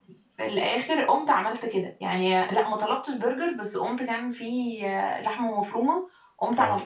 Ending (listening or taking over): listening